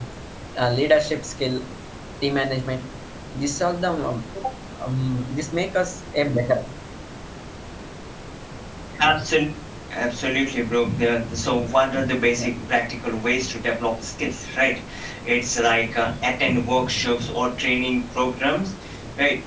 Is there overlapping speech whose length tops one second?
No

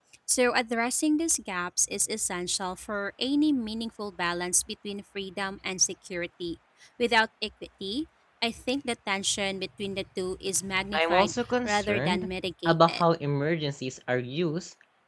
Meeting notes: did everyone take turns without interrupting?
No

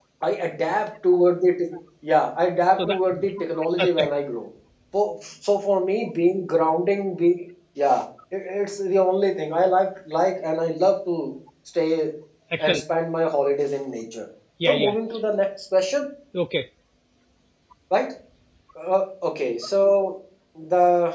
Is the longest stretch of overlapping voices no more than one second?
No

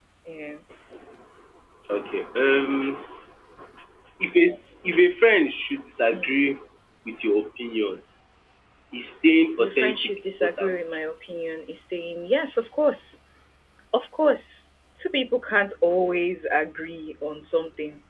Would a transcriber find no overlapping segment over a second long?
No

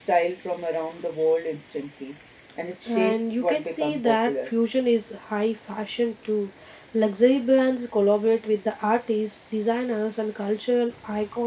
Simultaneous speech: Yes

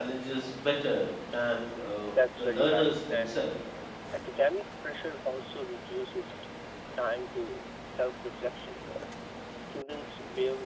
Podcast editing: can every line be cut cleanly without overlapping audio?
No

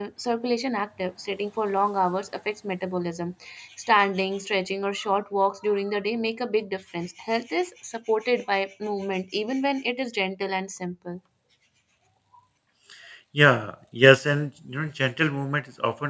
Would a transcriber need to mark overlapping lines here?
No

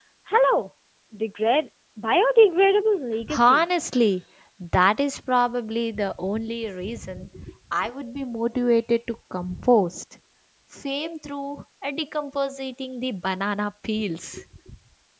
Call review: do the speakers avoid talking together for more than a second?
Yes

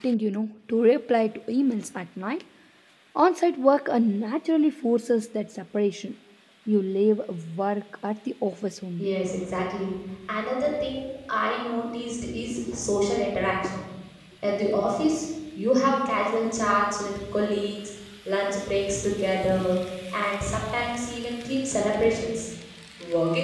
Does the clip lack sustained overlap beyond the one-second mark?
Yes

